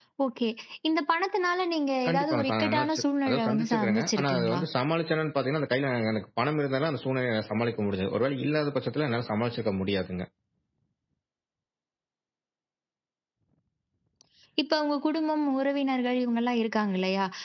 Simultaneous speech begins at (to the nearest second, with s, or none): 2 s